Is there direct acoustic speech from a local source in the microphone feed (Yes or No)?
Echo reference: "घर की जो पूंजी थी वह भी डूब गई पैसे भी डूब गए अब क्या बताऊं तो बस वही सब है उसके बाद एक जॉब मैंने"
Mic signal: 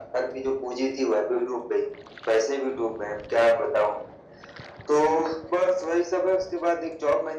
No